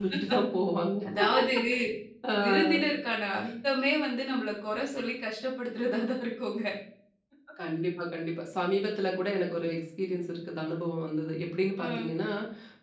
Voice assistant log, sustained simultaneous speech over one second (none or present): none